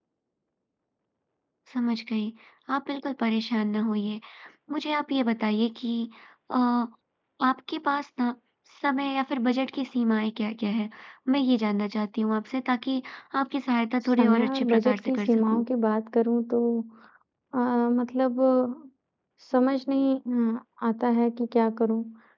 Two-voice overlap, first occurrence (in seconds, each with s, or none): 14.0 s